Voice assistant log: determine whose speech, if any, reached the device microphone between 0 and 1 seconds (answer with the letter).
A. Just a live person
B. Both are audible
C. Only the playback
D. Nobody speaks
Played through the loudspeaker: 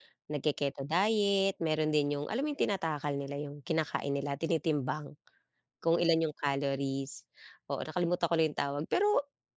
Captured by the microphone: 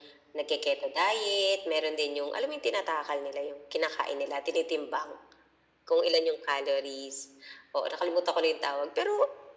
C